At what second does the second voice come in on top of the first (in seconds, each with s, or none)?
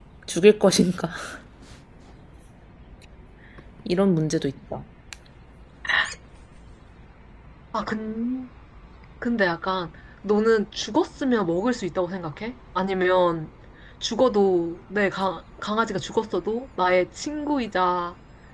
none